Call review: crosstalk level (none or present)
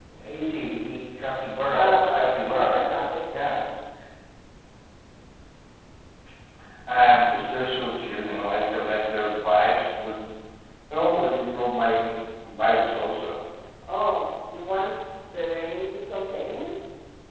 present